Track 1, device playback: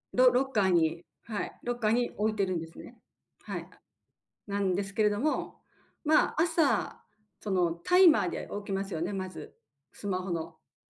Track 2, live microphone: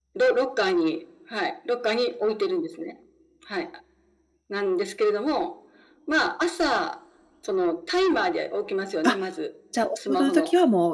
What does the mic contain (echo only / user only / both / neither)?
both